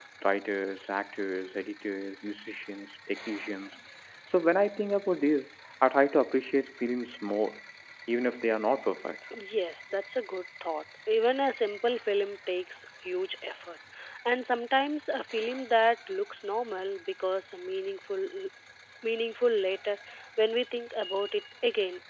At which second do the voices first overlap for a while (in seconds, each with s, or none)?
none